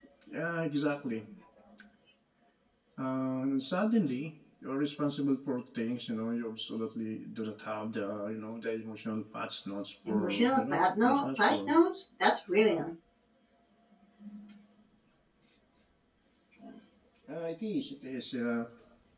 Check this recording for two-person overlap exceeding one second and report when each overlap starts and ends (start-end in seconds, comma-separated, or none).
10.1-11.7